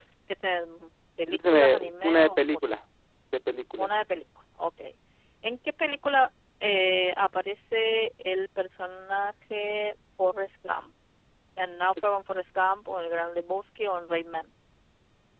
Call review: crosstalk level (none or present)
present